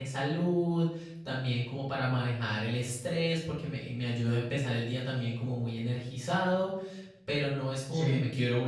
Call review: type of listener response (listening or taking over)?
listening